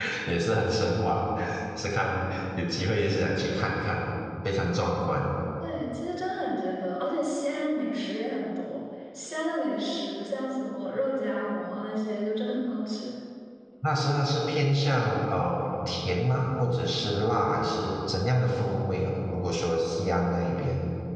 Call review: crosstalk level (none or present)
none